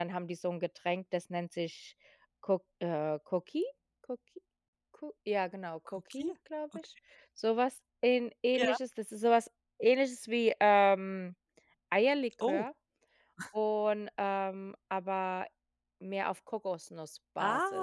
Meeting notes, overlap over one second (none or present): none